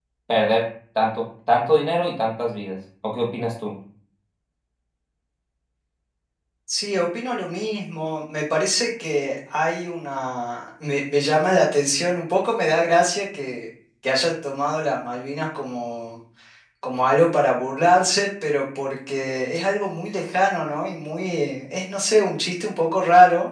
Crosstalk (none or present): none